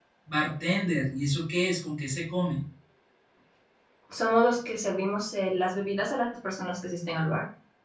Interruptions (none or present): none